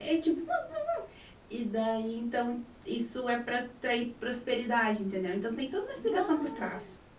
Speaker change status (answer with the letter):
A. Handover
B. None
B